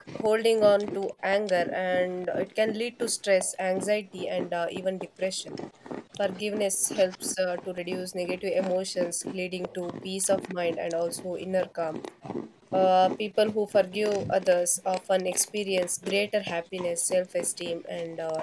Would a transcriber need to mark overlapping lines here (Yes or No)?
No